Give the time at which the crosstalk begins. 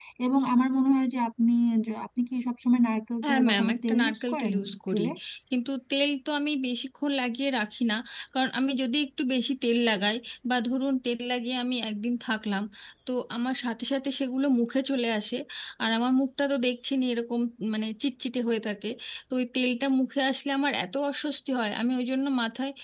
3 s

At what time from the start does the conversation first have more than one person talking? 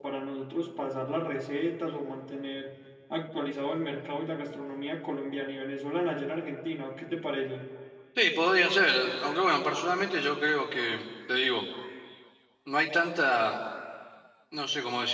none

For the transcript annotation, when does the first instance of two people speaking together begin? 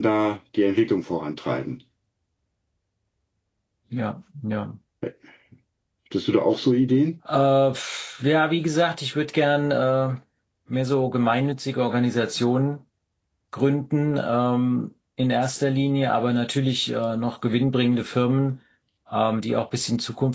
none

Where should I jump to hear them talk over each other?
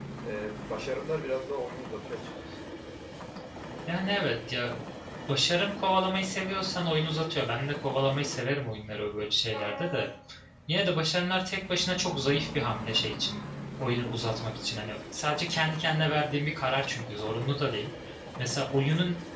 none

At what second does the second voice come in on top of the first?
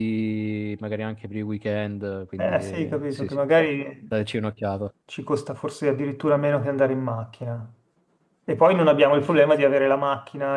2 s

